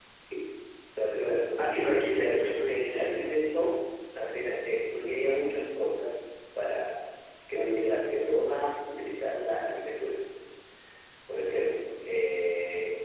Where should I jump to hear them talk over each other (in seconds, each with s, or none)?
1.6 s